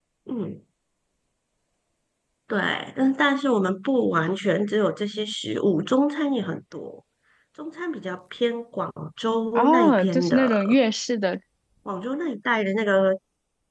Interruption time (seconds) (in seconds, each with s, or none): 9.6 s